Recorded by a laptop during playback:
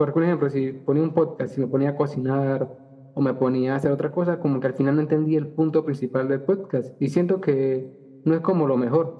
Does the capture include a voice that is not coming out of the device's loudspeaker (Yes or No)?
No